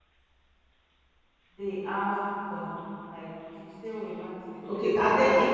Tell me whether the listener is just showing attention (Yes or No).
No